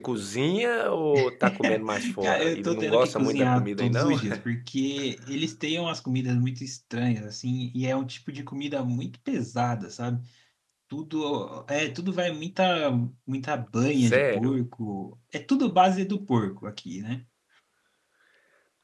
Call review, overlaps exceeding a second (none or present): present